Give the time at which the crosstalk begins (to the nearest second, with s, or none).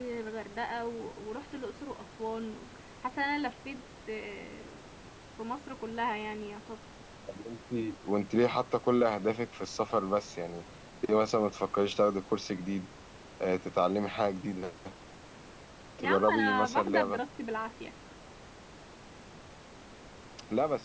16 s